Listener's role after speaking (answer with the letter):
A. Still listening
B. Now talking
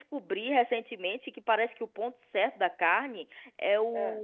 A